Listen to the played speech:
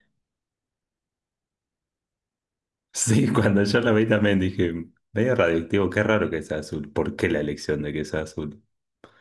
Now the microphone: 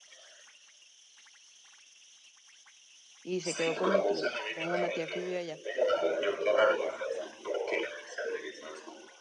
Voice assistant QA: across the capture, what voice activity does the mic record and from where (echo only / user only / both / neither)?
both